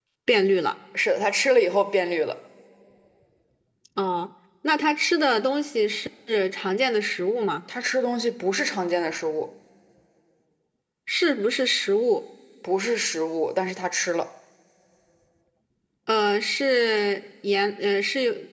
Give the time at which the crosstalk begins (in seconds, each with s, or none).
none